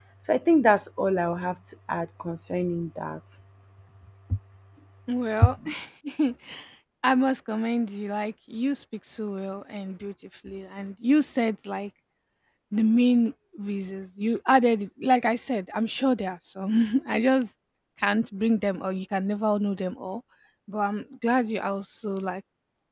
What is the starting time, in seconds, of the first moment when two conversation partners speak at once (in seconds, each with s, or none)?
none